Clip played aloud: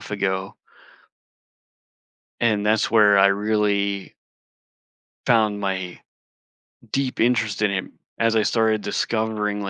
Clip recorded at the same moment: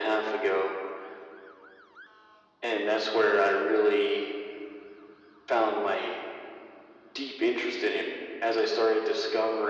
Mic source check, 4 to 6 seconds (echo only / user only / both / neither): echo only